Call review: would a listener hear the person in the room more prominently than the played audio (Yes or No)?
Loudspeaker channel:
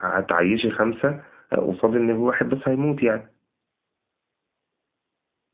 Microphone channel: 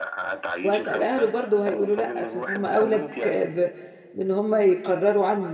Yes